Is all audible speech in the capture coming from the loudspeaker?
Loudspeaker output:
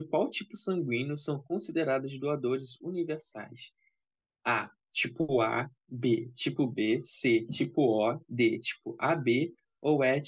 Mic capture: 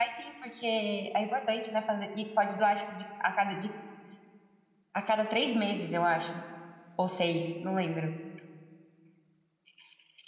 No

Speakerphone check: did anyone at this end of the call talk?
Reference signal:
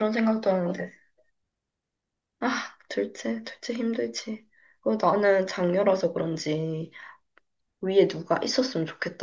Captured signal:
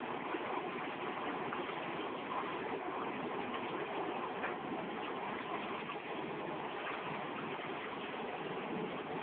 No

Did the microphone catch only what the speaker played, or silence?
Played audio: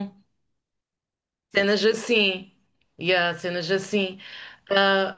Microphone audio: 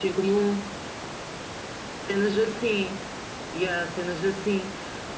Yes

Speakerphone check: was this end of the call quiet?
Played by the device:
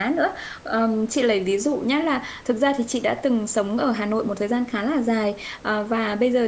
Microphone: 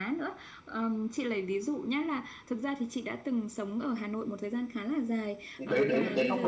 No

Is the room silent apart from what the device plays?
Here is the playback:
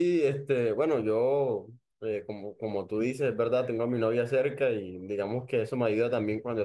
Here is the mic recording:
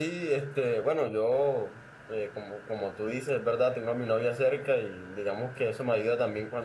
Yes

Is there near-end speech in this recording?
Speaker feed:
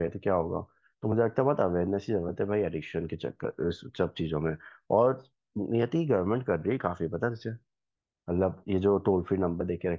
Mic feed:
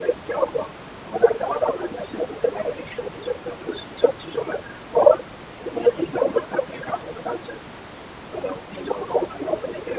No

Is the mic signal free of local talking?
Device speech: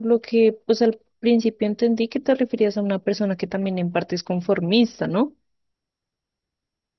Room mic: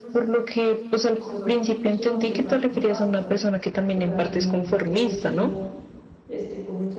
No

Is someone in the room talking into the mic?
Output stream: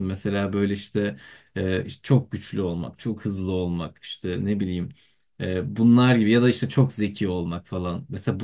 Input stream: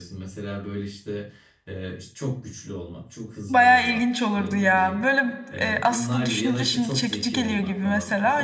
Yes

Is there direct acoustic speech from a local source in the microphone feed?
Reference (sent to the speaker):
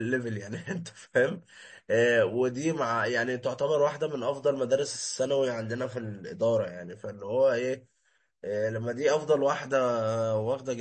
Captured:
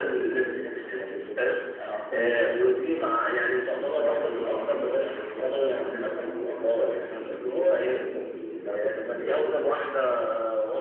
Yes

